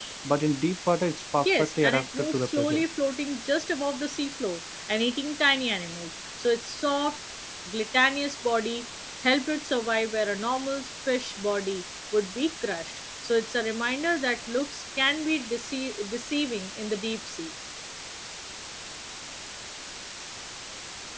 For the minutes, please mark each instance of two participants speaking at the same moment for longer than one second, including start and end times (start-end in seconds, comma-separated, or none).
1.4-2.8